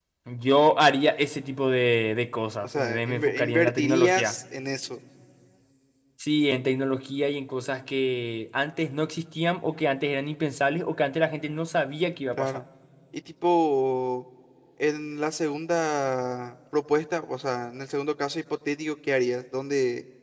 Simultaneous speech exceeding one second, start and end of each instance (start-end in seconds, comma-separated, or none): 2.6-4.3